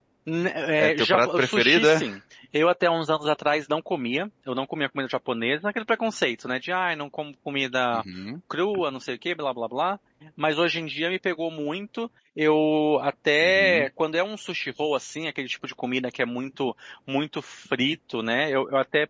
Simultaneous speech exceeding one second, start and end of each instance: 0.8-2.0

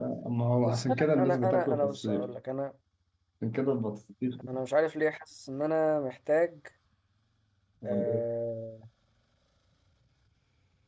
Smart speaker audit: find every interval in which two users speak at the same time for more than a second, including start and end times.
0.6-2.3

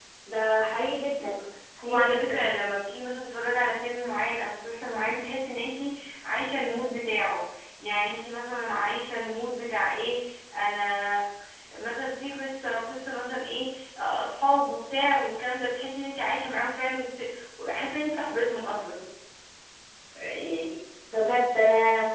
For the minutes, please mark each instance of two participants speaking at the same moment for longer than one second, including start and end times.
none

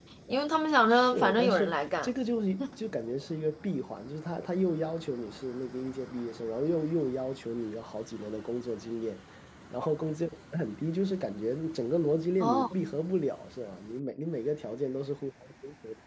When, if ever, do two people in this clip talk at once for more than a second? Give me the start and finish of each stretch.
0.9-2.1

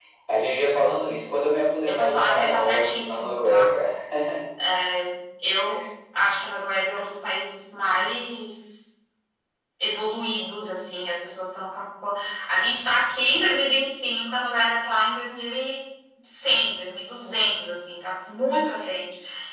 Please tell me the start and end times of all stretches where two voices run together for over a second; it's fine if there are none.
1.9-3.7

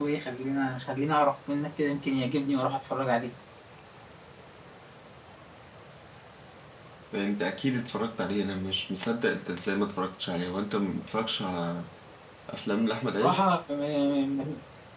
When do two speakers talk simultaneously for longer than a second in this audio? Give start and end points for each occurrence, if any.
none

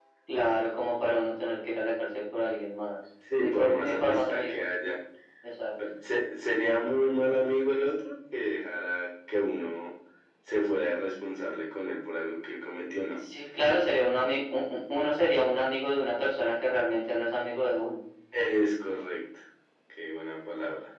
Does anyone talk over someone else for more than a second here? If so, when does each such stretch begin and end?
3.4-4.7

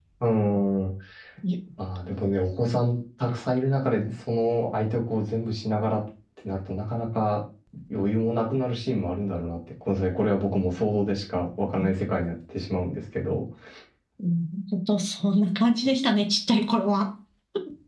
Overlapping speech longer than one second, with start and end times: none

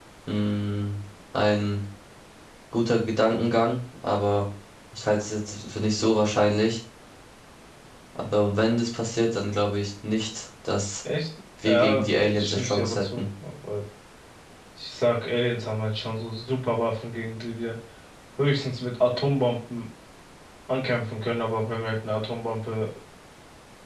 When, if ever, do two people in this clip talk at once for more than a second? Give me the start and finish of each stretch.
11.7-13.2

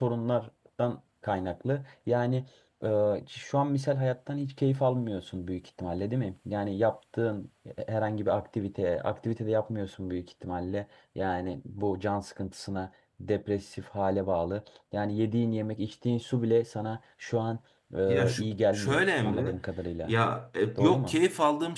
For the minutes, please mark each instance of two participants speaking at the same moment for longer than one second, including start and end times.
18.1-19.6

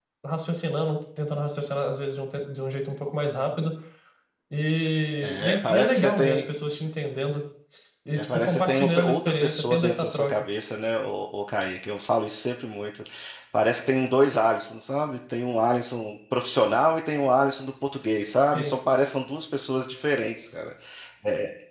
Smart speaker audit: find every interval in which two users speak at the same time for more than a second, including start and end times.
5.2-6.5, 8.2-10.3

